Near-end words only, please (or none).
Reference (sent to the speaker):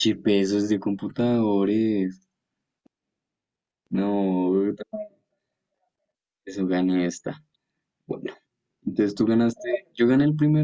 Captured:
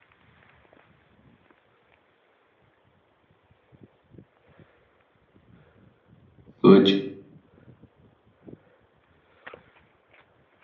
ocho